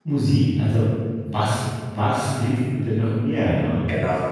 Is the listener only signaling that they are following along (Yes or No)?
No